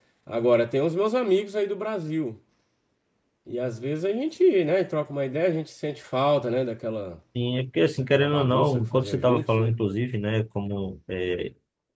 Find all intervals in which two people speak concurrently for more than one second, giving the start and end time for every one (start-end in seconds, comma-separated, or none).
8.1-9.7